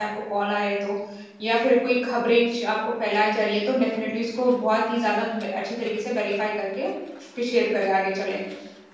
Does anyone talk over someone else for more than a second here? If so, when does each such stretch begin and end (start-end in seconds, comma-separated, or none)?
none